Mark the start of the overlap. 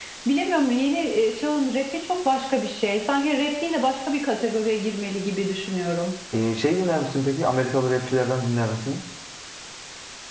none

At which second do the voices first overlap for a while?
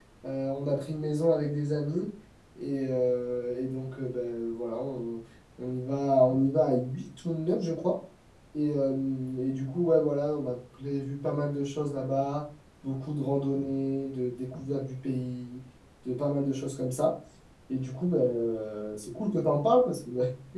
none

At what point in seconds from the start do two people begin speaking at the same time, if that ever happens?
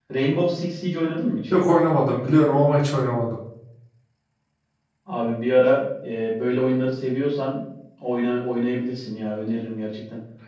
none

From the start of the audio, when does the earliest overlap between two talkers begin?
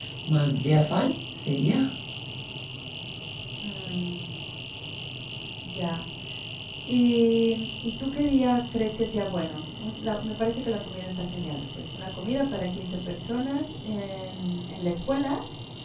none

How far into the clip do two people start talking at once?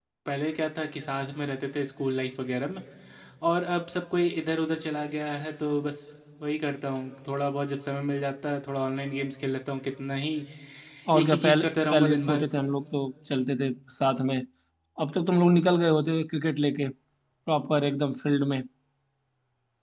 11.2 s

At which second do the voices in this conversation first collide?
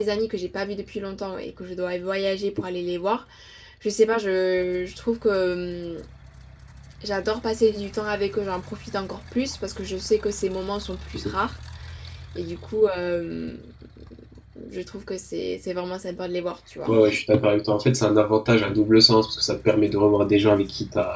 none

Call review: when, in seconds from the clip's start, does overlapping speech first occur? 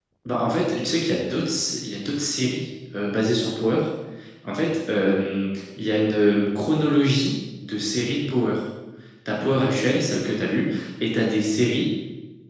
none

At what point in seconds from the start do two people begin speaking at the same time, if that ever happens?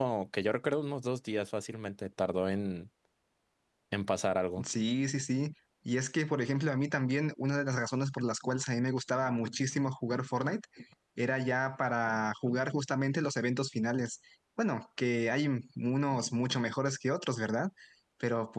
none

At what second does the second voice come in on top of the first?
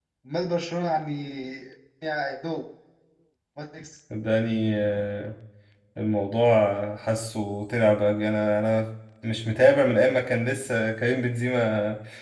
none

